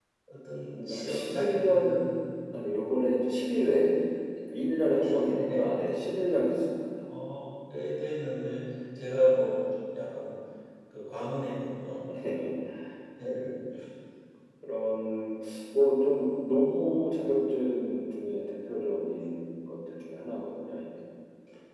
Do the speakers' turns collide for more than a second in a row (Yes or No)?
Yes